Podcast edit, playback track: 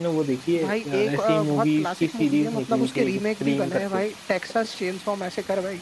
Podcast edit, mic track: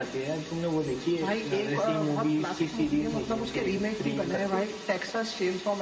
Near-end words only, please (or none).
none